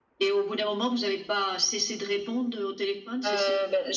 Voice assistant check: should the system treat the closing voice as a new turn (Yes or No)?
Yes